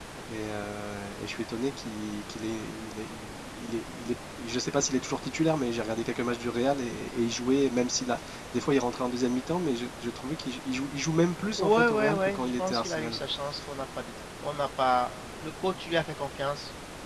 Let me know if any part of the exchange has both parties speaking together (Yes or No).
Yes